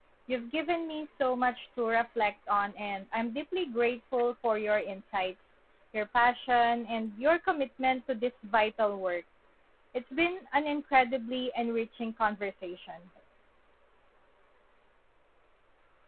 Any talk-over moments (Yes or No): No